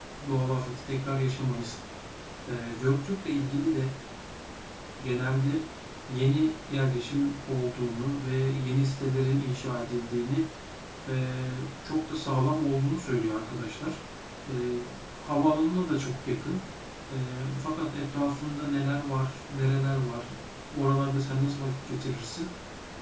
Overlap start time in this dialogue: none

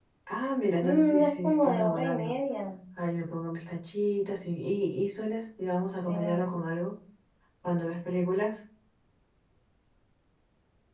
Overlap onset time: 0.8 s

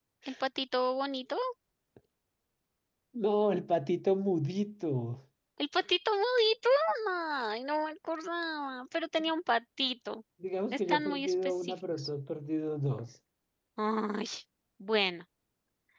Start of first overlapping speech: 10.7 s

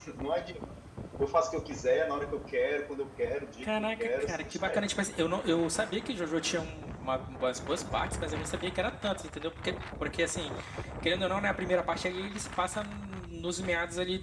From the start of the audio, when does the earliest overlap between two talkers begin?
3.6 s

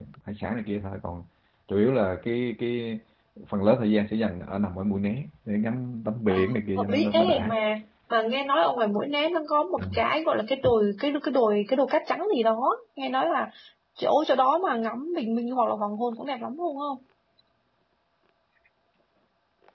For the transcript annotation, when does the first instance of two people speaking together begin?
6.3 s

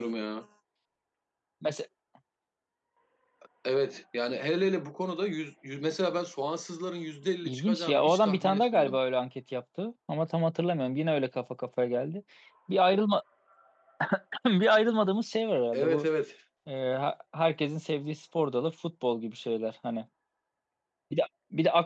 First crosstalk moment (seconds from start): 7.4 s

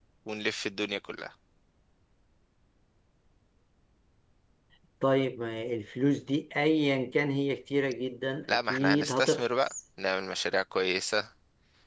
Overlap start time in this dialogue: 8.5 s

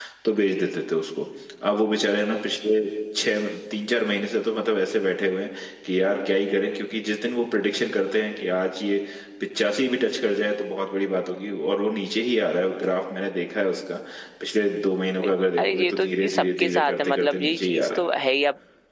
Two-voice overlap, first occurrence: 15.2 s

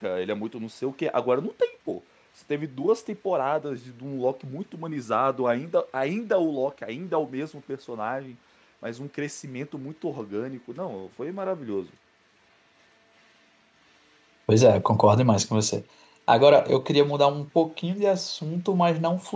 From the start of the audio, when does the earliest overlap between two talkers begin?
none

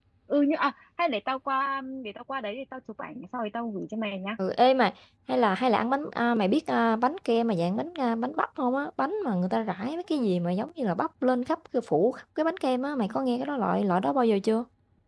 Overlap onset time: none

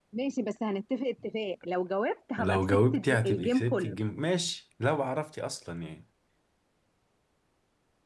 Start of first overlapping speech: 2.4 s

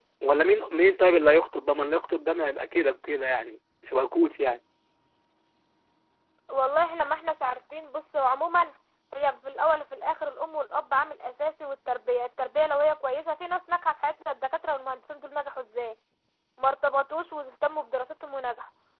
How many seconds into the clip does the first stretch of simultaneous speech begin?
none

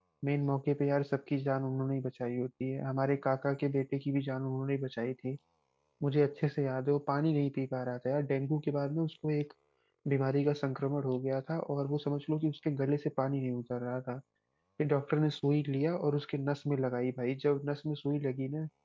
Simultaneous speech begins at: none

